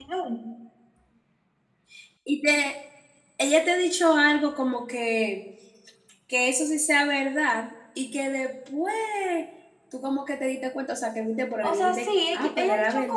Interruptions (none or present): present